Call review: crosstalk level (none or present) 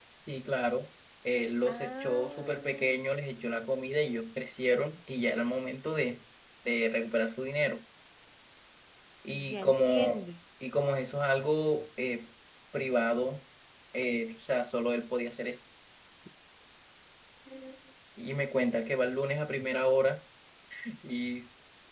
present